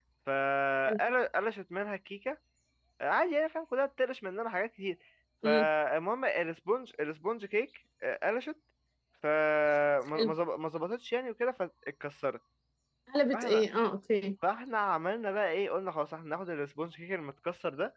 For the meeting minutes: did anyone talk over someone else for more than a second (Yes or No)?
No